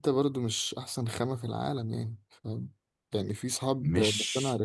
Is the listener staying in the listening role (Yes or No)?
Yes